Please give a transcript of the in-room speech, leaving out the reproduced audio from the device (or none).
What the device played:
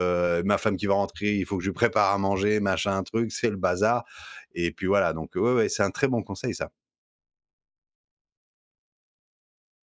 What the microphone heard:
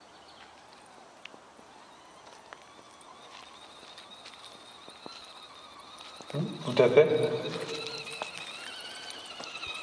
Mmh, tout à fait,